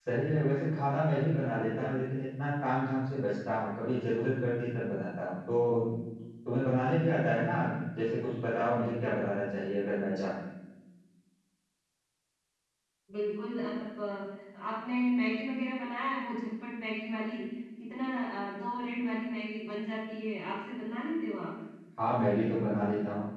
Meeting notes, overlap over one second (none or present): none